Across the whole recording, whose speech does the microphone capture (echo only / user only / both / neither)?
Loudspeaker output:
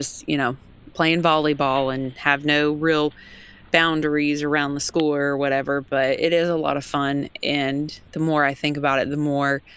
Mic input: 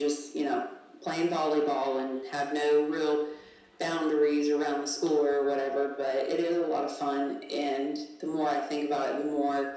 echo only